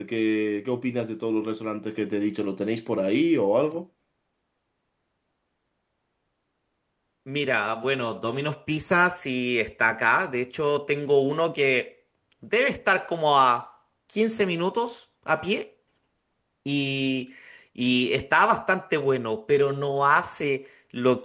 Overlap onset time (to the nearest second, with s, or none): none